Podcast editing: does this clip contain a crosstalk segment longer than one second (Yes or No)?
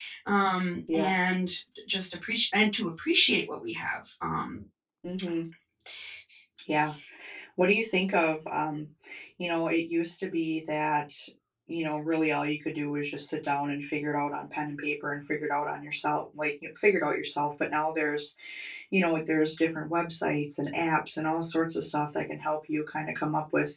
No